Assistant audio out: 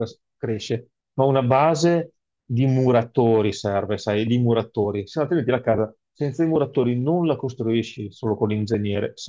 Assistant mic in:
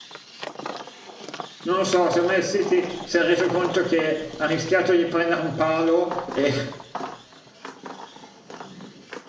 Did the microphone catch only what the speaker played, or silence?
No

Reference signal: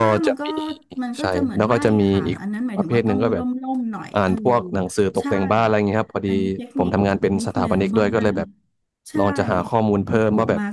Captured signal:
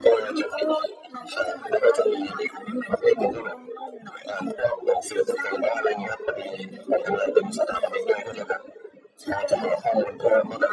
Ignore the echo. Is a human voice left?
No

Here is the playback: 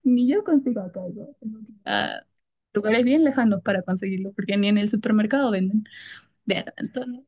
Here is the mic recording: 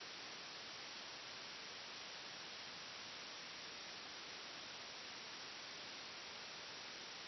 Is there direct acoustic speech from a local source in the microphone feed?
No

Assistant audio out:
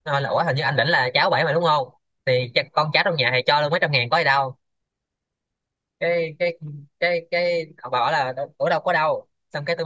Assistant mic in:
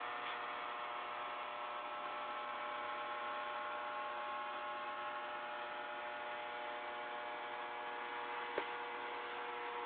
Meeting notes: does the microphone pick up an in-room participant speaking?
No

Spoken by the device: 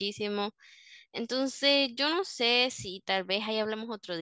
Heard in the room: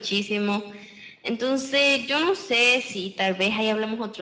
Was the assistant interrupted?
No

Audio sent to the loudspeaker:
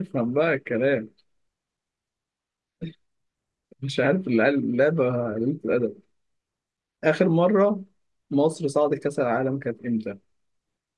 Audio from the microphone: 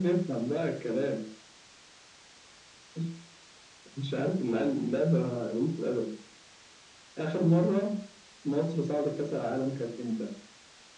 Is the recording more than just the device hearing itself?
No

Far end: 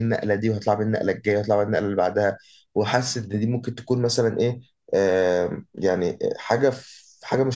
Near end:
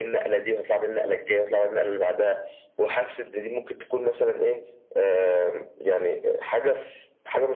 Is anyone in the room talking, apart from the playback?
No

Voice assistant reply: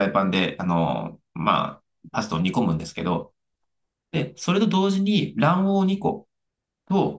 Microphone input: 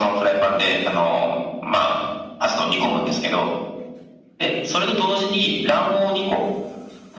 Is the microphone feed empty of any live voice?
Yes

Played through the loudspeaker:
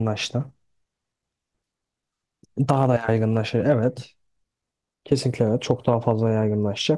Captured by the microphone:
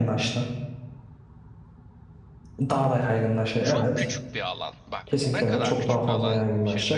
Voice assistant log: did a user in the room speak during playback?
Yes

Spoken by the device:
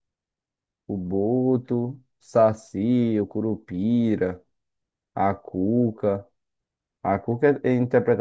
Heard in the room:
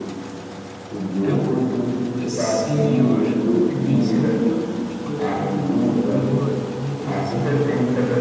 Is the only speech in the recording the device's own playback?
No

